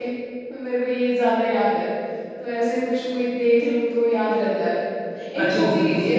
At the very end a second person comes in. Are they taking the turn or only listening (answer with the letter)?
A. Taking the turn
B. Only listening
A